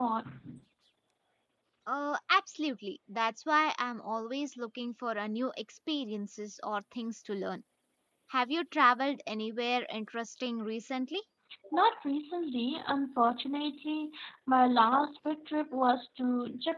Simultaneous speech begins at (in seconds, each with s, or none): none